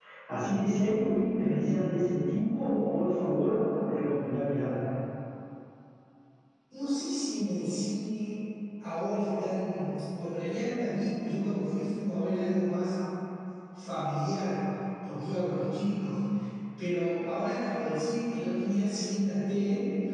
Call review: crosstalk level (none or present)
none